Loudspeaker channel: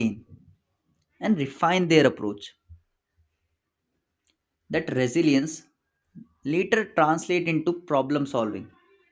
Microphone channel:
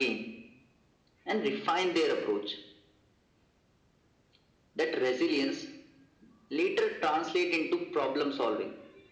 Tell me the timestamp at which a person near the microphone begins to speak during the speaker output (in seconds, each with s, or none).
none